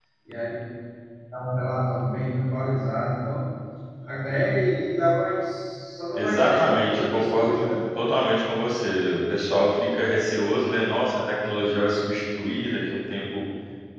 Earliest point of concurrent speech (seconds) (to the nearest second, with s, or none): 6 s